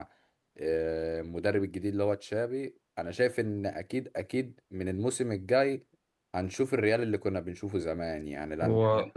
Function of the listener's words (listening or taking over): listening